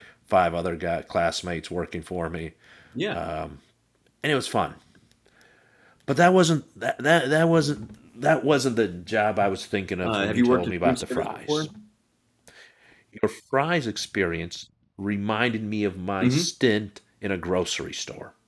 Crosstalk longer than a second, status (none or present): present